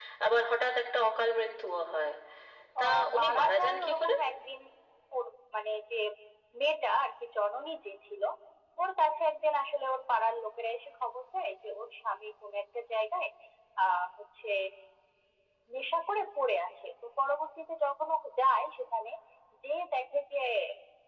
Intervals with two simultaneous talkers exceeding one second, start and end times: 2.8-4.1

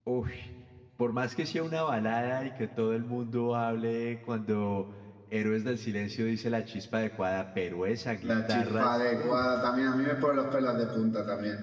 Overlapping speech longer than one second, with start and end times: 8.2-9.6

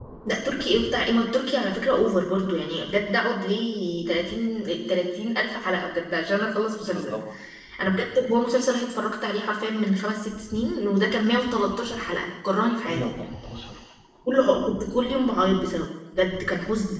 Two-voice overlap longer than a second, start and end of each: none

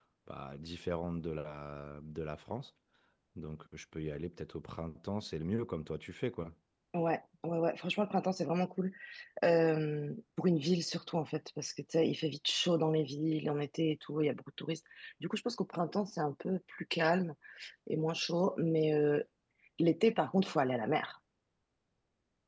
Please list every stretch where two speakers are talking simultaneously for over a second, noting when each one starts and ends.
none

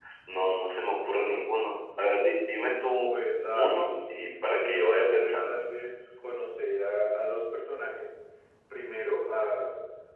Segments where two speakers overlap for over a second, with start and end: 3.5-5.6

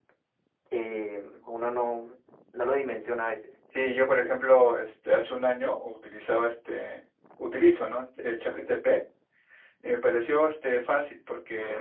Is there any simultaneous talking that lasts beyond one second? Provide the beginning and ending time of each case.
none

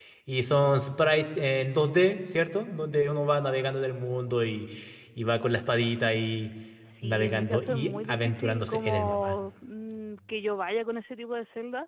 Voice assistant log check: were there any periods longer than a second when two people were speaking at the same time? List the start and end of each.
7.0-9.4

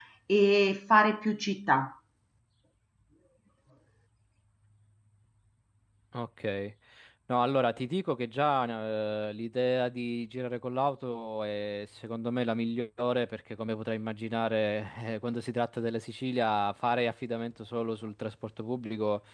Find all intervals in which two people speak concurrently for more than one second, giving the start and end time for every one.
none

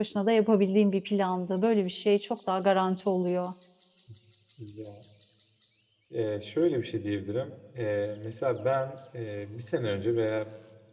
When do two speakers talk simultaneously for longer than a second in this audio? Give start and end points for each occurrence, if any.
none

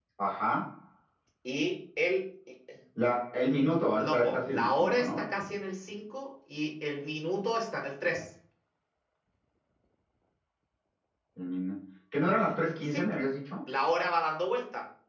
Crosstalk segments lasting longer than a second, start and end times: 4.0-5.2

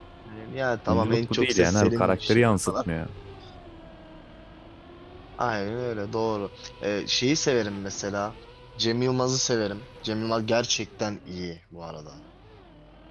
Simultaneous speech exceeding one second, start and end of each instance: 0.9-2.7

